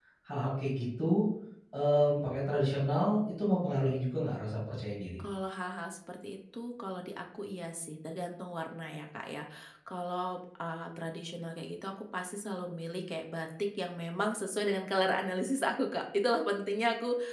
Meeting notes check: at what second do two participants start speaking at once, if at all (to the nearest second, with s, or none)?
none